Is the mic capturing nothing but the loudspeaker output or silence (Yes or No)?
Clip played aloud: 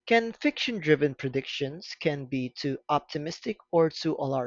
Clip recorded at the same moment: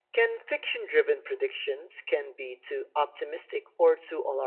Yes